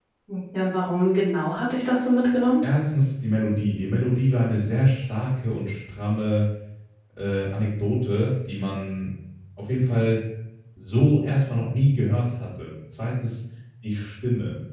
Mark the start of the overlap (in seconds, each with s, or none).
none